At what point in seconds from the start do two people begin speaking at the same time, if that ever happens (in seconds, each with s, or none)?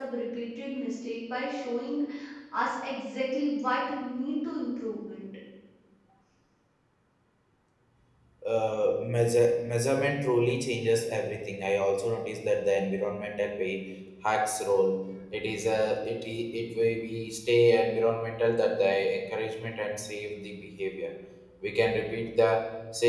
none